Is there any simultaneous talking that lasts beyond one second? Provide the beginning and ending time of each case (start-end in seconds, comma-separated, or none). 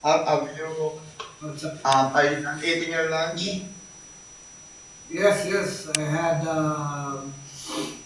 none